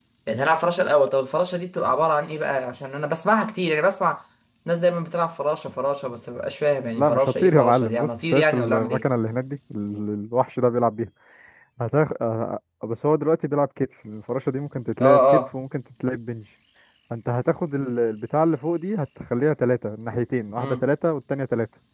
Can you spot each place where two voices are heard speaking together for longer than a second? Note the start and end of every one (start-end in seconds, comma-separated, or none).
6.9-9.0